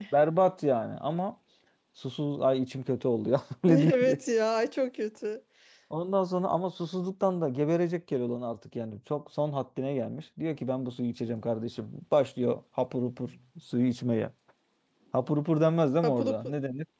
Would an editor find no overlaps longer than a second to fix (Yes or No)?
Yes